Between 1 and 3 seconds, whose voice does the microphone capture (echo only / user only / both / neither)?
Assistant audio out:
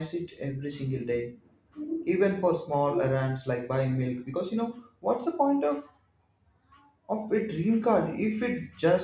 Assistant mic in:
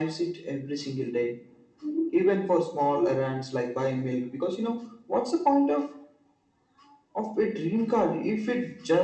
echo only